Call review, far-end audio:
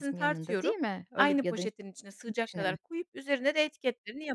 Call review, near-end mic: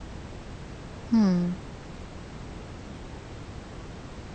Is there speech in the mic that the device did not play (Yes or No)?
Yes